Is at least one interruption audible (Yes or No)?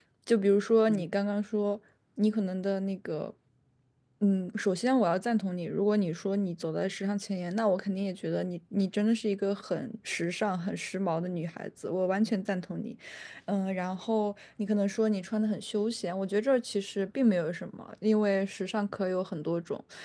No